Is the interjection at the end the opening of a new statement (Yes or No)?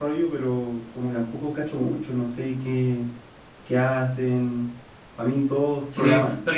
Yes